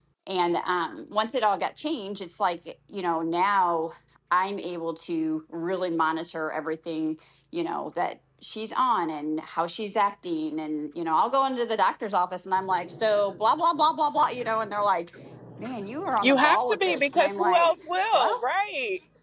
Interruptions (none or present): present